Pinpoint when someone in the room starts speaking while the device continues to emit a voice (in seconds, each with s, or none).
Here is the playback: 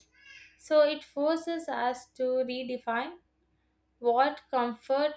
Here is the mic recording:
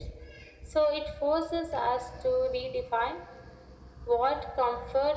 none